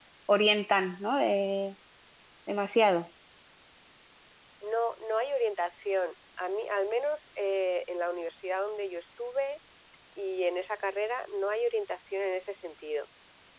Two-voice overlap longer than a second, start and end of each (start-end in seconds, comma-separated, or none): none